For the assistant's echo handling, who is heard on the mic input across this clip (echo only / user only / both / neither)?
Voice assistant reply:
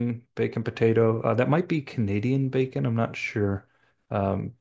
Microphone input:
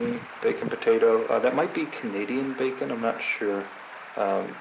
echo only